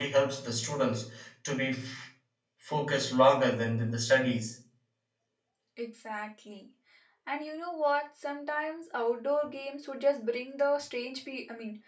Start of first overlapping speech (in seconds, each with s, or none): none